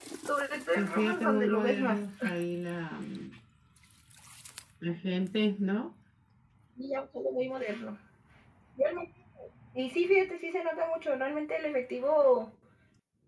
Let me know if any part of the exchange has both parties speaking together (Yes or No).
Yes